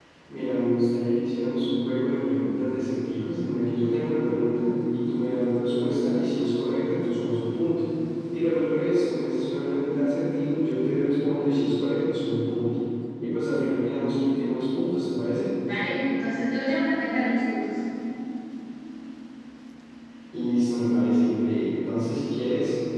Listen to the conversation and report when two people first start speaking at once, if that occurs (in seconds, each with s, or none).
none